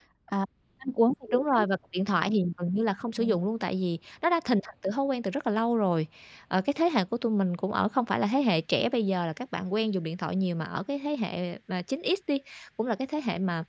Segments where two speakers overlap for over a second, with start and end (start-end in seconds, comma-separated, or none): none